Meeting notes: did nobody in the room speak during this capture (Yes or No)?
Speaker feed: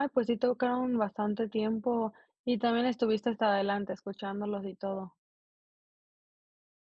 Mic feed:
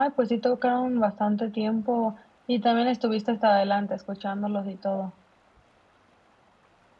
Yes